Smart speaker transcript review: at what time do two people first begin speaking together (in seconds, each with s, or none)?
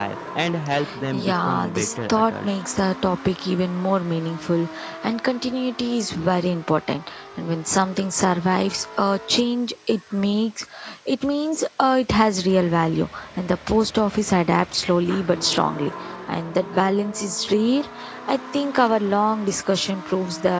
1.1 s